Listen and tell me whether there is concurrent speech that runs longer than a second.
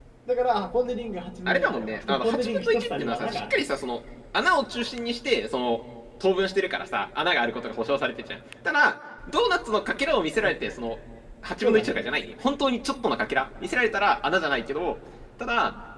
Yes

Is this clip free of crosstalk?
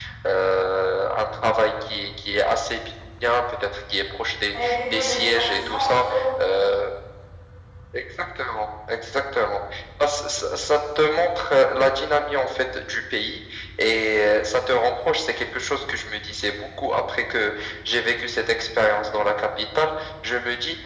No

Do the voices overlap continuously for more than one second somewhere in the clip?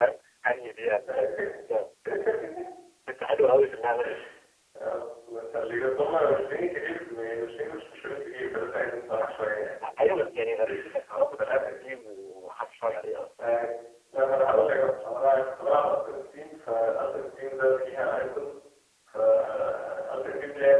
No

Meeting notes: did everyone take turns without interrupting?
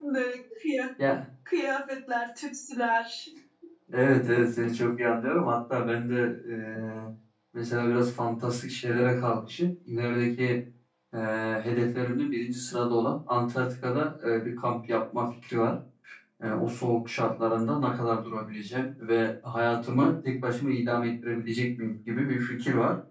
Yes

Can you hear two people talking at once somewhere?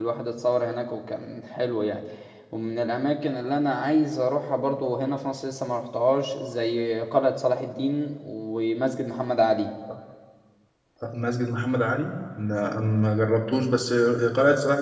No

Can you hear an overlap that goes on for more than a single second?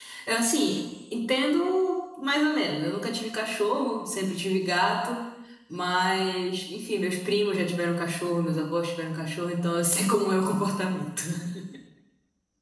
No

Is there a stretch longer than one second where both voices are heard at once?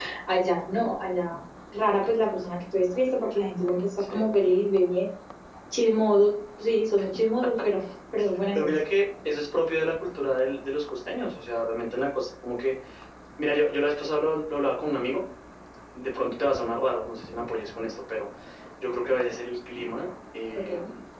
No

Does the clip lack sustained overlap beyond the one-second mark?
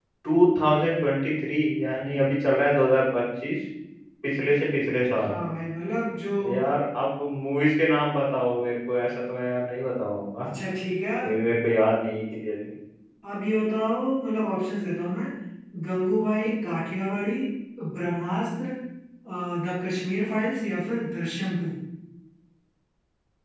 Yes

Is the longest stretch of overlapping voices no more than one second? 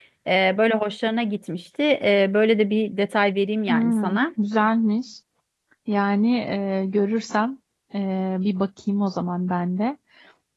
Yes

